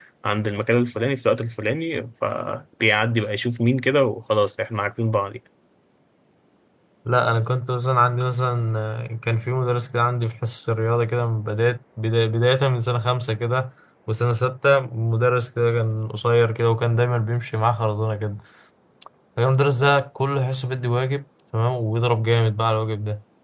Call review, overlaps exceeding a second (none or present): none